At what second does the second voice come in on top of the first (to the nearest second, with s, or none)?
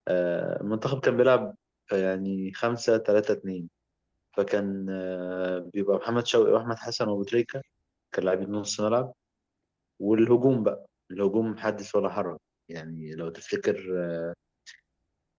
none